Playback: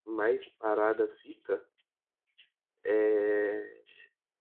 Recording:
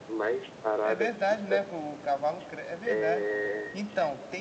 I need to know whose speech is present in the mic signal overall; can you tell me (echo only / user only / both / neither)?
both